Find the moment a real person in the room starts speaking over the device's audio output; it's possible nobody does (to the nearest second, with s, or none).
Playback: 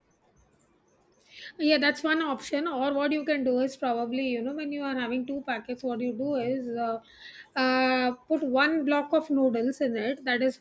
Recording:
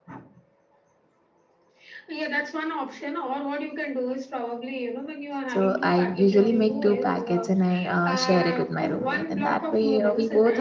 5 s